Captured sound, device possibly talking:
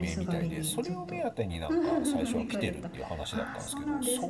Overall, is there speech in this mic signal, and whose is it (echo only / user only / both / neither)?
both